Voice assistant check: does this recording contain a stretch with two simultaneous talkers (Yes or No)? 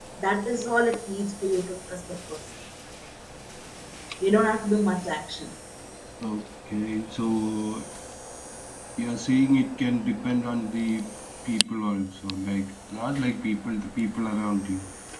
No